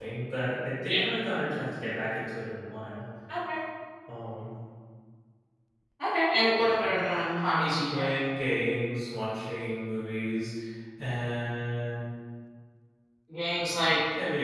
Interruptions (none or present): present